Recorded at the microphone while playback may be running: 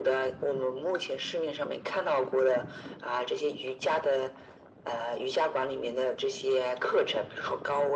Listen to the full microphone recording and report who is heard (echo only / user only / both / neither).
echo only